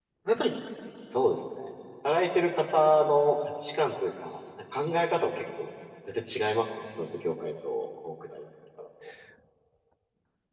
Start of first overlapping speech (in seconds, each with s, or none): none